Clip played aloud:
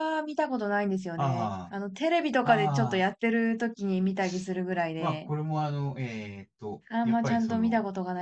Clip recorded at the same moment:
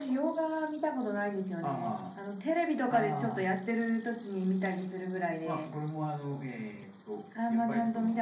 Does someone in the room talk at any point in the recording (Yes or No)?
No